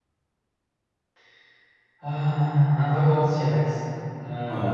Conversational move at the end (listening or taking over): taking over